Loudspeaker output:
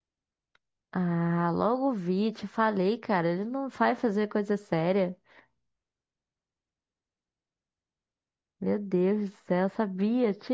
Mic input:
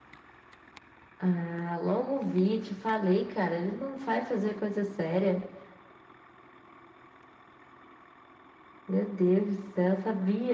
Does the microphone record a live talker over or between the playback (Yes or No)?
No